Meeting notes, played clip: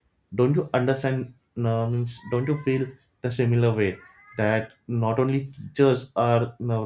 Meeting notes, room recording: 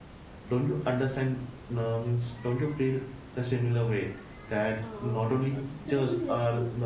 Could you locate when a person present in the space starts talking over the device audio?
4.8 s

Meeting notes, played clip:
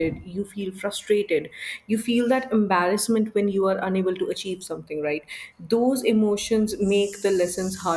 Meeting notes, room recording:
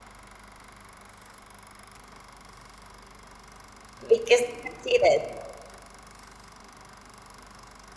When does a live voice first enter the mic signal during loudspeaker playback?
4.1 s

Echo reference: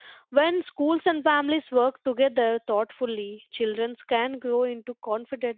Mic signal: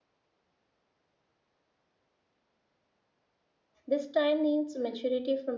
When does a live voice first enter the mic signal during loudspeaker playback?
3.9 s

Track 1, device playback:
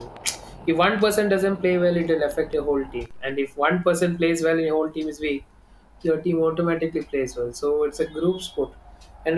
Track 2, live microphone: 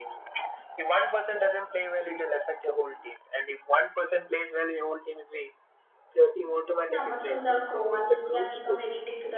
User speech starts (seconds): 6.9 s

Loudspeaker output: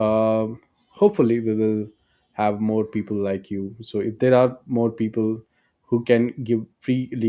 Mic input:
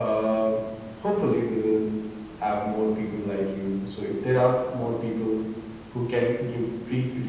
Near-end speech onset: none

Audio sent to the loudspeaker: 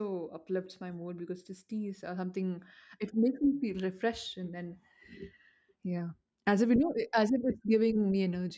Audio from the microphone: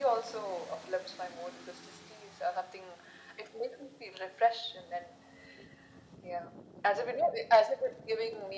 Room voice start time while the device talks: none

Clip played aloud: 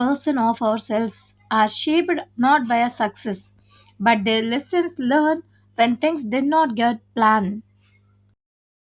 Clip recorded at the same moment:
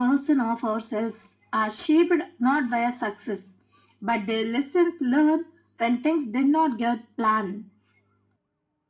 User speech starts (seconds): none

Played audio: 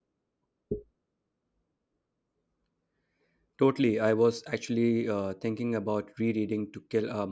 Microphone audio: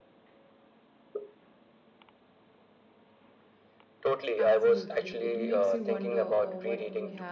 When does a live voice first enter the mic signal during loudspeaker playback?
4.4 s

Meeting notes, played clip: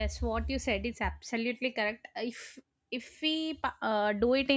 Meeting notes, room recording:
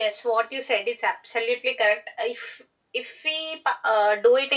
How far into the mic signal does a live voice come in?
none

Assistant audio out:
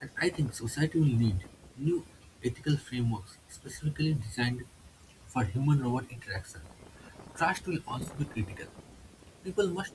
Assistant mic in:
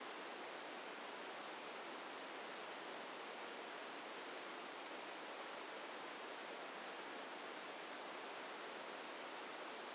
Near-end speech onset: none

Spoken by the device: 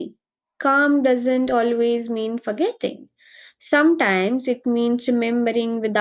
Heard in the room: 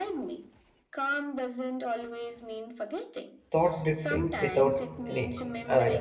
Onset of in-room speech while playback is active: 3.5 s

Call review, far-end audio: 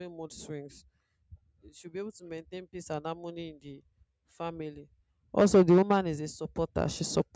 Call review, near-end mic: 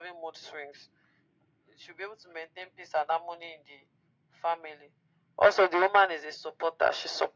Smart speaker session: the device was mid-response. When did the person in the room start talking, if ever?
none

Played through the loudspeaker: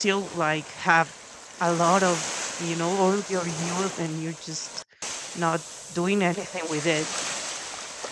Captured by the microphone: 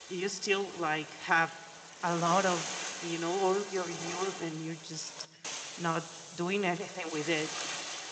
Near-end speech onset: none

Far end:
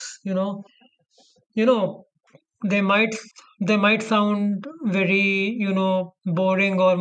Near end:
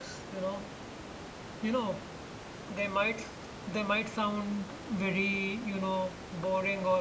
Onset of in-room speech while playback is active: none

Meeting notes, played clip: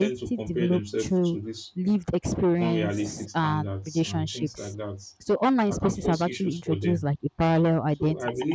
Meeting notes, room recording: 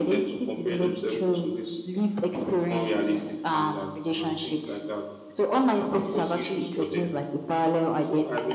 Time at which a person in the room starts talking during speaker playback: none

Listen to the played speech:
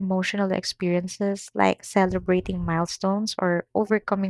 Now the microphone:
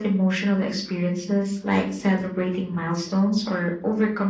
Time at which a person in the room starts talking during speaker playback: none

